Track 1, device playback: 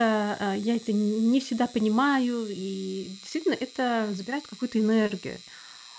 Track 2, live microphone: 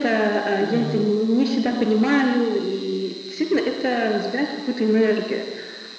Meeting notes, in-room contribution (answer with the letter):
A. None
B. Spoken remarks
B